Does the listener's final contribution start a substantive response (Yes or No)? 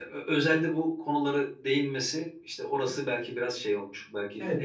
Yes